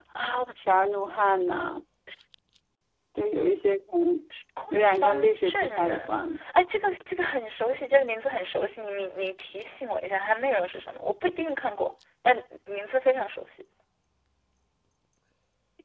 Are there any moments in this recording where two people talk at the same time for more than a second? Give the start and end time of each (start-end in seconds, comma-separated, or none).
4.7-6.1